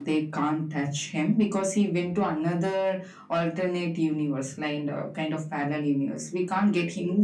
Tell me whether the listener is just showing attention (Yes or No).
Yes